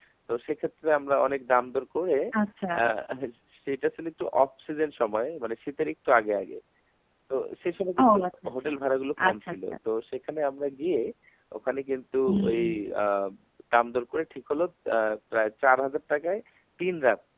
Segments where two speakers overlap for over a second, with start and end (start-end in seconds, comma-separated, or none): none